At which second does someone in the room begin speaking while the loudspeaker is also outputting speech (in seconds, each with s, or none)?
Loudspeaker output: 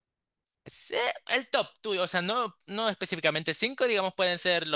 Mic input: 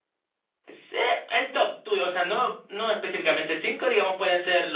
none